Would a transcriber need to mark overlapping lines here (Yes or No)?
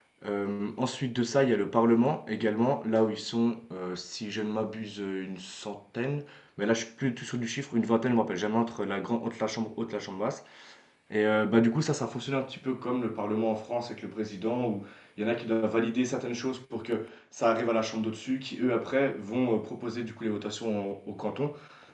No